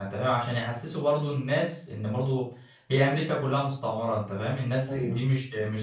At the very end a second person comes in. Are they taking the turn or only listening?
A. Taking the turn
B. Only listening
B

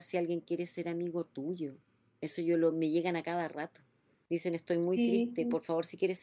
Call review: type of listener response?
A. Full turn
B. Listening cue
B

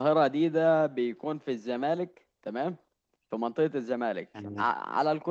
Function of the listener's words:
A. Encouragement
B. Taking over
A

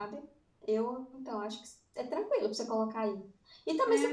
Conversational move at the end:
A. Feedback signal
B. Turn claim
B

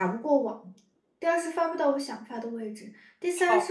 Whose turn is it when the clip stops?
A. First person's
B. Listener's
A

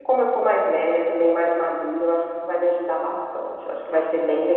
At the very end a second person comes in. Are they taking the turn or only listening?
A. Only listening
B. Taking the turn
B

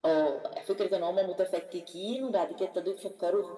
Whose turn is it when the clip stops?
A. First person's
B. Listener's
A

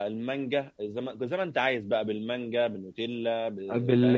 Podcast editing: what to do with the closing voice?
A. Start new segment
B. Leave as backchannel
A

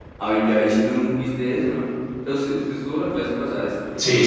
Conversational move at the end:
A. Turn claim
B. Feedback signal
A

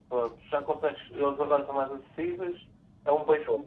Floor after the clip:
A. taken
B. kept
B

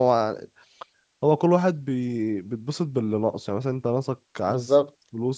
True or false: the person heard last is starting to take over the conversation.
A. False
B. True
A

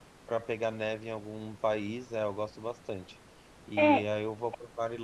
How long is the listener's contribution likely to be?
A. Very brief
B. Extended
A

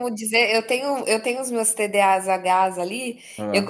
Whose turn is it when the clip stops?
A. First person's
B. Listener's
A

